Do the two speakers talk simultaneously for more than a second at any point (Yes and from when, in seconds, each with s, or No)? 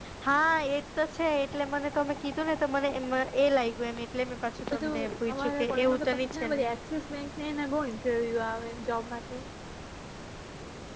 Yes, from 4.7 s